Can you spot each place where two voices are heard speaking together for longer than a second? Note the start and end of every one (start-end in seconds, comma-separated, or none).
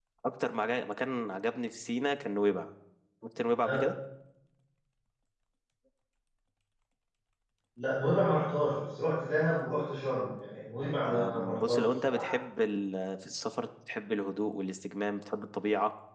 11.0-12.3